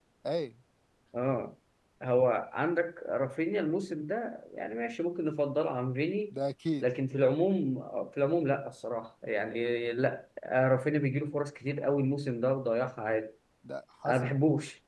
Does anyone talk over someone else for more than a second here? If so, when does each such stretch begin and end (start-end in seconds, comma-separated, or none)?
none